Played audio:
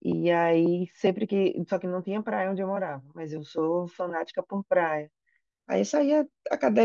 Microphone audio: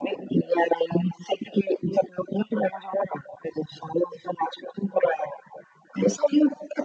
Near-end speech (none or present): none